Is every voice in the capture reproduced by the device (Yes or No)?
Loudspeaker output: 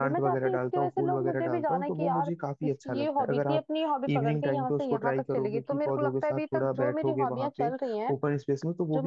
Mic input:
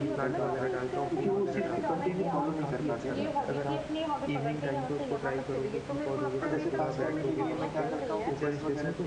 No